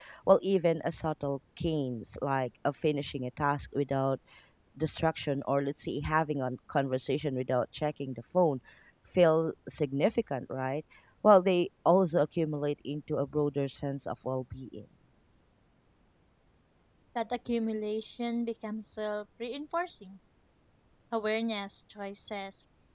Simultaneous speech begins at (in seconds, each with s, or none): none